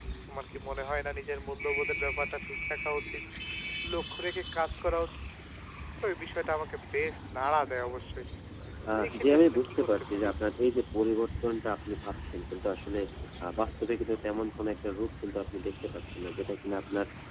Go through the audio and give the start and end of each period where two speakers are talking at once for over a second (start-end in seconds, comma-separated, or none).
8.9-10.3